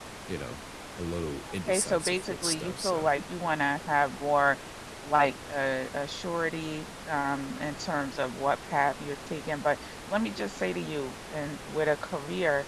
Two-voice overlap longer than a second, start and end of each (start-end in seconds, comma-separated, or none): 1.6-3.1